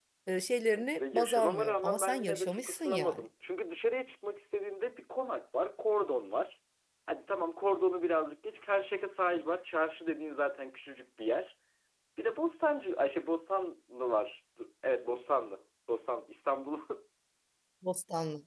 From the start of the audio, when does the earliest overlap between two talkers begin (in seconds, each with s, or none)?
0.7 s